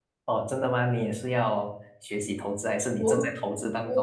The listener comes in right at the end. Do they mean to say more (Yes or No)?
Yes